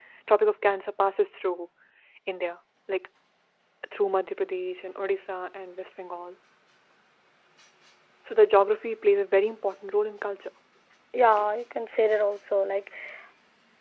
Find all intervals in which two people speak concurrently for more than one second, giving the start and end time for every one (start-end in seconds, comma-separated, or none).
none